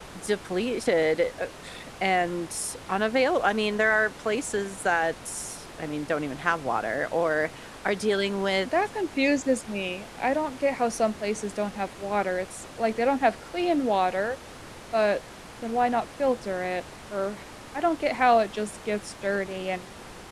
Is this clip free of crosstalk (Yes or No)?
Yes